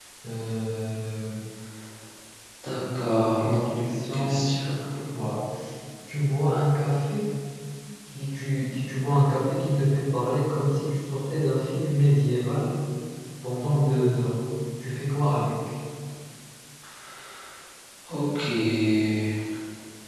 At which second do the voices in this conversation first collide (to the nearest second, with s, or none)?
3 s